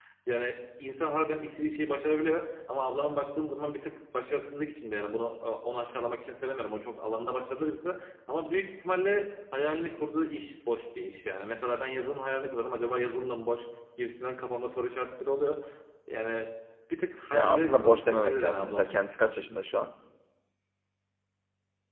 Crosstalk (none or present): present